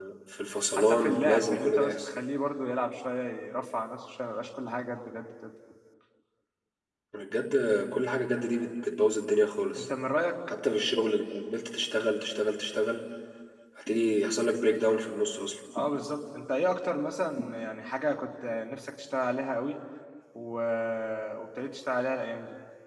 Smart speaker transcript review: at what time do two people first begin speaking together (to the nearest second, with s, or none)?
1 s